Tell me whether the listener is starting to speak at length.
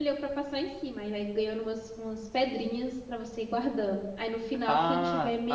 Yes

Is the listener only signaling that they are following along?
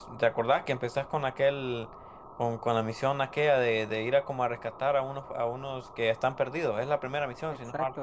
No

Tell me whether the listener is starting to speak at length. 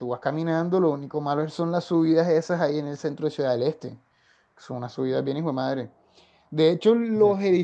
No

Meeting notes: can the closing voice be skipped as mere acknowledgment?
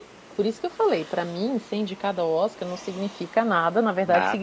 Yes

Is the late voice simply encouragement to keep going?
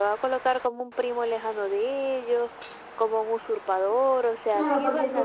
No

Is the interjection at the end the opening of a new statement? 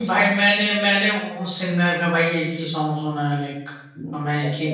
Yes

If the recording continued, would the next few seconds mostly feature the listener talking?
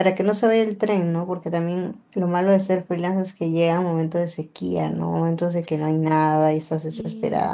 No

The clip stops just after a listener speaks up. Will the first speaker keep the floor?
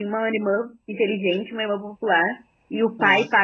Yes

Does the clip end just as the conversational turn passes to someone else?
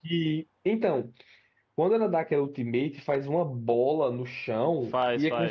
No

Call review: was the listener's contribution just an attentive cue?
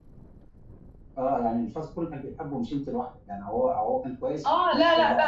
No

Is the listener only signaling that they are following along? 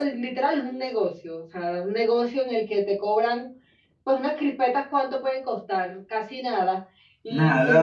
Yes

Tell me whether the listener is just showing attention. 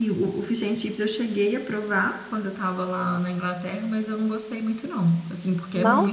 Yes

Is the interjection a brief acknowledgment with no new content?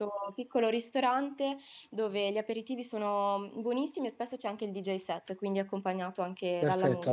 No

